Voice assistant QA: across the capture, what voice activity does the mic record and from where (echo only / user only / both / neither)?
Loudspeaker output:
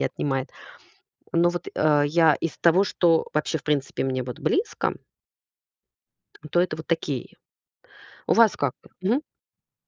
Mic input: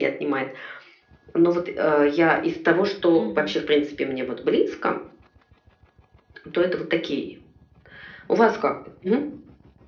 both